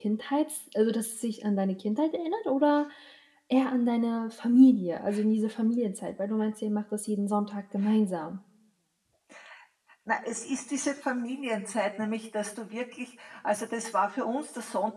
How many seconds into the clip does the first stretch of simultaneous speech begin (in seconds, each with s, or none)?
none